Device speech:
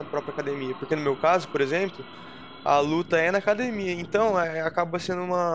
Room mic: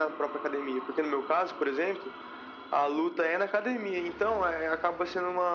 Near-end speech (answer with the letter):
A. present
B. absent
B